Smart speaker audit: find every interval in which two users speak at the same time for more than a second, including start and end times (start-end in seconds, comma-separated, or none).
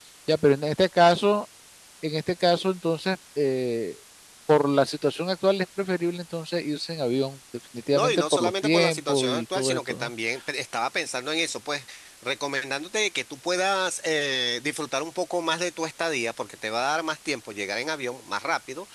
7.9-10.1